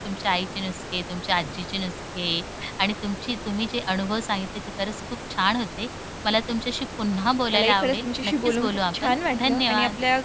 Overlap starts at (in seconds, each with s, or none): 7.5 s